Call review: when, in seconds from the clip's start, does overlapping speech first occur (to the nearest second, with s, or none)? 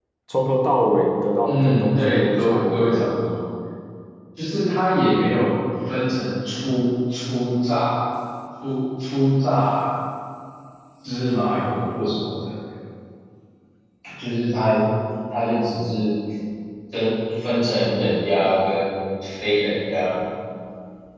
1 s